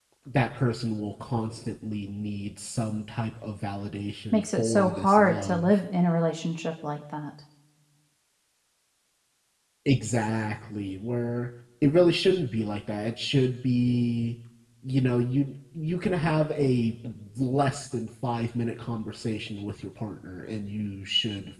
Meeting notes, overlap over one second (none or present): present